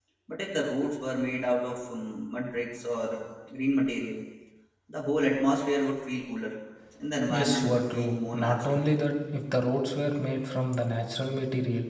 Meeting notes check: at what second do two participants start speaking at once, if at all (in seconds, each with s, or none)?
7.3 s